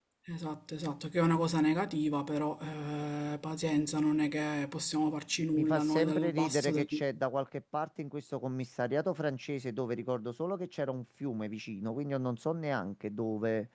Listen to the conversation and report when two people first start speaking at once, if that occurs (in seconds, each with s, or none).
5.5 s